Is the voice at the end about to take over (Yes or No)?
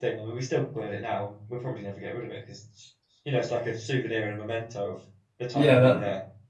Yes